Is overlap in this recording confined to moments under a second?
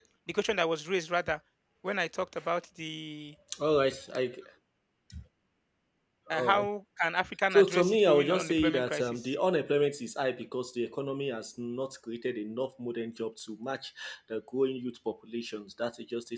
No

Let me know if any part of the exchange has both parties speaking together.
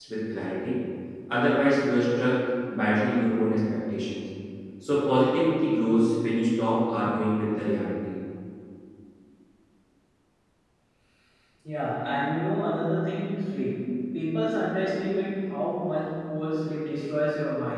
No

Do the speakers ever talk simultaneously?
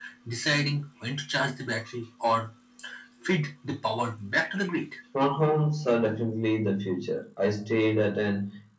No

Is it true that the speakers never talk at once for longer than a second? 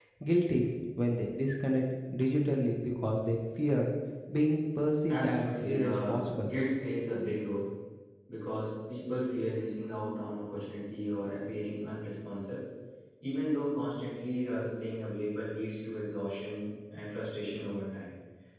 No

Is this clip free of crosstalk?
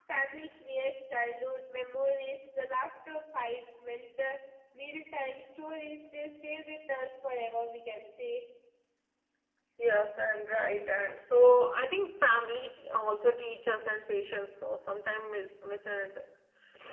Yes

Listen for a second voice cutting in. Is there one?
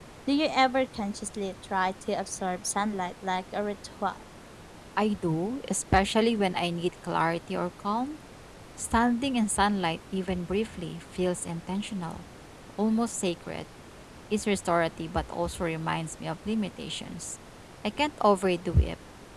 No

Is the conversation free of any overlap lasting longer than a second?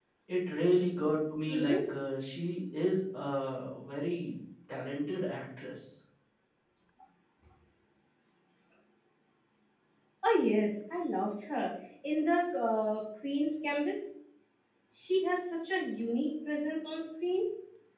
Yes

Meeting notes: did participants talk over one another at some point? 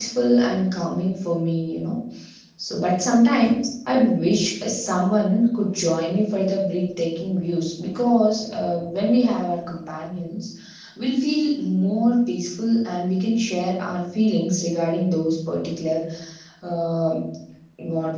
No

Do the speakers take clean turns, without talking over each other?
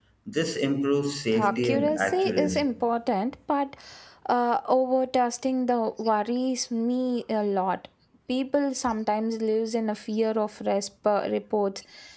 No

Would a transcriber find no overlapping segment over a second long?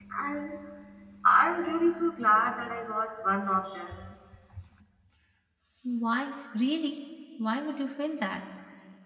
Yes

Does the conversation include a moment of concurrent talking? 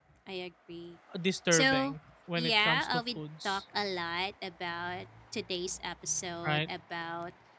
Yes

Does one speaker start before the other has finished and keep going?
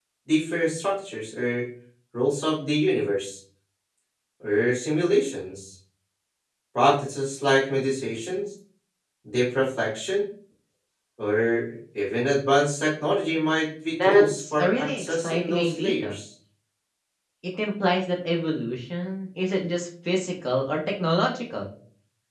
Yes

